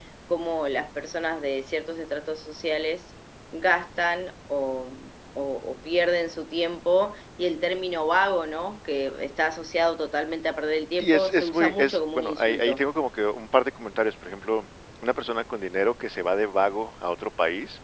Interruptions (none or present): present